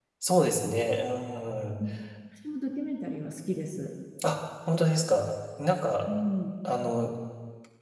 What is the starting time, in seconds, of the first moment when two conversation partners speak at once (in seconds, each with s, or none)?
none